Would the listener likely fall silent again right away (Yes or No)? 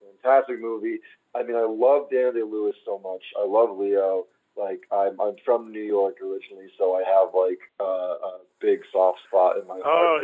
No